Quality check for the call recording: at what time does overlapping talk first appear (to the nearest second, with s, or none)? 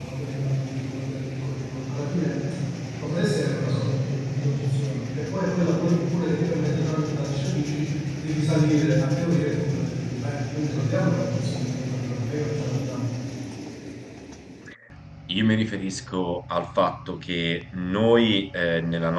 none